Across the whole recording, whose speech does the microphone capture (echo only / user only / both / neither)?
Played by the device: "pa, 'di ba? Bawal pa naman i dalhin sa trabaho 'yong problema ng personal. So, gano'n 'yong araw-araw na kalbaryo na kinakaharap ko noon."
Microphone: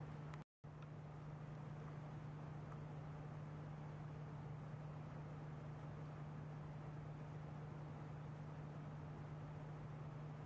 neither